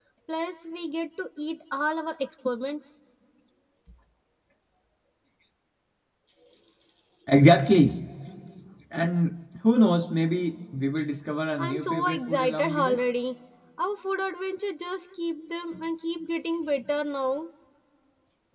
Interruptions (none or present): present